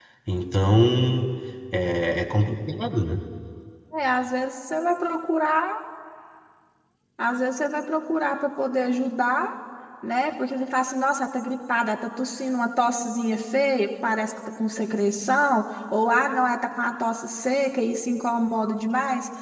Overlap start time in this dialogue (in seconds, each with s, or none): none